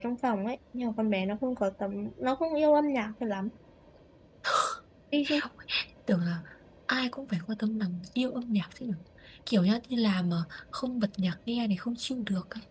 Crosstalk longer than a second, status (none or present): none